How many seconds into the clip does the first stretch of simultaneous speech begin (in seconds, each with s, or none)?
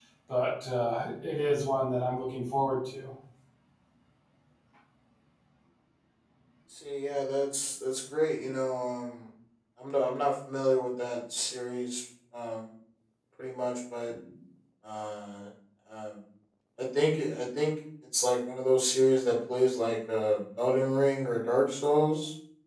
none